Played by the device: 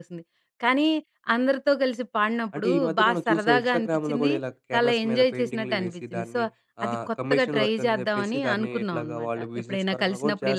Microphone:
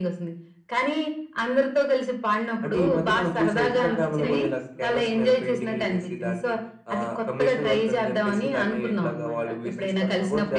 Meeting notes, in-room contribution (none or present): present